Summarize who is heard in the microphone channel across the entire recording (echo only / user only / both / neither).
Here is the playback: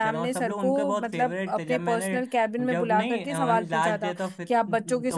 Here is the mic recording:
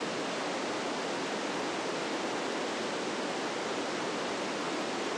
neither